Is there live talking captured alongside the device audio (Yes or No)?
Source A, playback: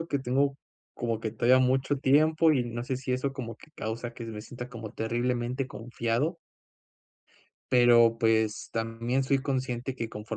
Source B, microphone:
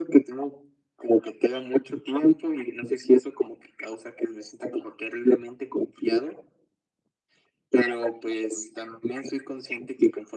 No